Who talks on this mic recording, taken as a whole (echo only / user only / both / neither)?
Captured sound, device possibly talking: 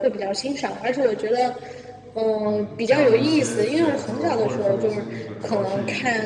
both